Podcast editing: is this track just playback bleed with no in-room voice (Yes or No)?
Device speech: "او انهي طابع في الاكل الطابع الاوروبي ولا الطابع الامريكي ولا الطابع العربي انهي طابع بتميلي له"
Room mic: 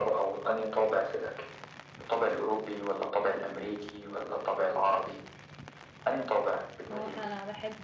No